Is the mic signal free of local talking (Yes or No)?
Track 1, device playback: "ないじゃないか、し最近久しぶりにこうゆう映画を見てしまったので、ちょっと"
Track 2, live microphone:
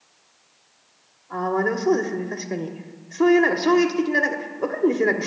No